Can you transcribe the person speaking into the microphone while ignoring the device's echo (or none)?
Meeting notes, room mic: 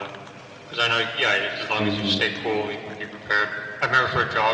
mhm.